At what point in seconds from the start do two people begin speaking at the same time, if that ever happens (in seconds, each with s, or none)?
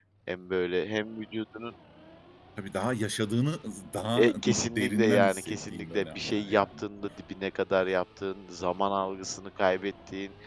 4.2 s